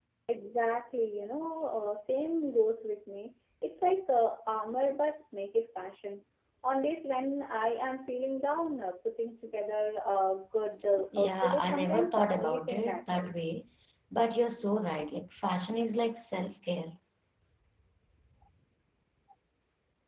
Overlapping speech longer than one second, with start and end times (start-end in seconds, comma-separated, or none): 11.2-13.3